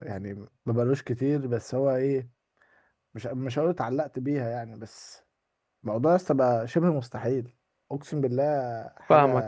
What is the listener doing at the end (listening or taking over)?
taking over